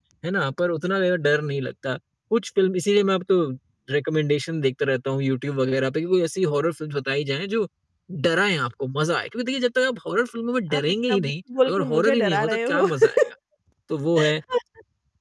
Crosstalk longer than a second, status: present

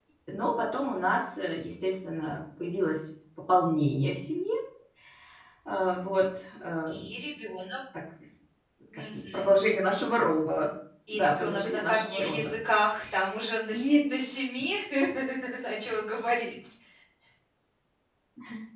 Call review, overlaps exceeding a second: present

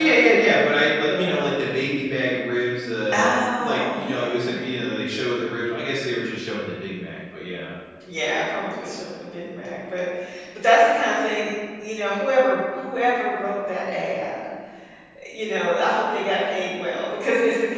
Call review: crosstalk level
present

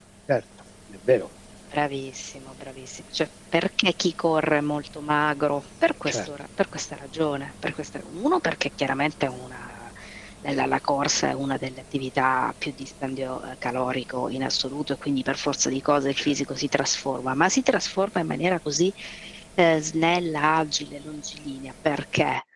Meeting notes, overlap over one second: none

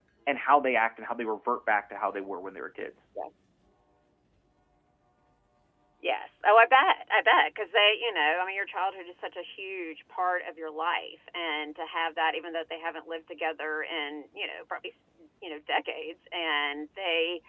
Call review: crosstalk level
none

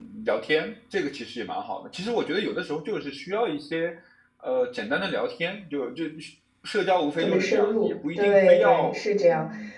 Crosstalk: present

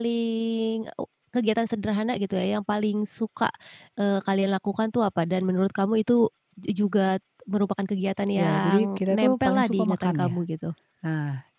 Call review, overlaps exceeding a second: present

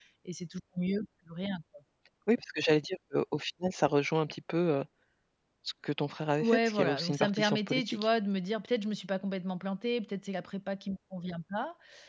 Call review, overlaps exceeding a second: present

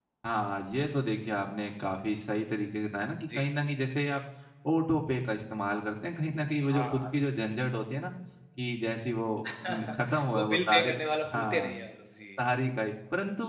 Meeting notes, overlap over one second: present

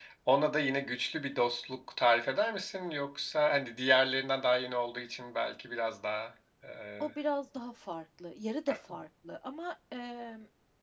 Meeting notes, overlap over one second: none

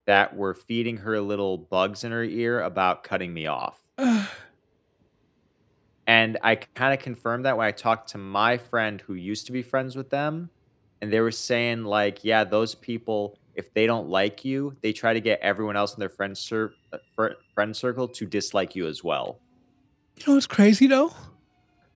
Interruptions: none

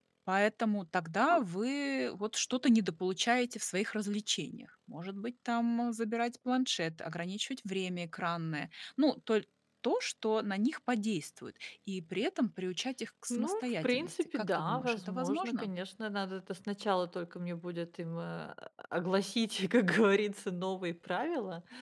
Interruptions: present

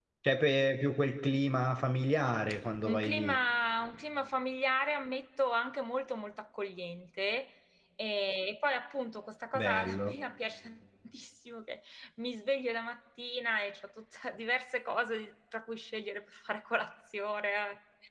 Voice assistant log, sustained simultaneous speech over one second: none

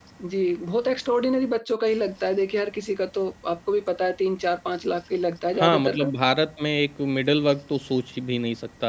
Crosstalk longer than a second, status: none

